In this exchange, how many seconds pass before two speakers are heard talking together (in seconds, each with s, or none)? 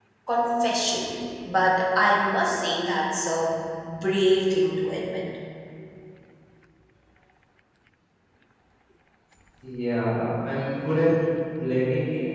none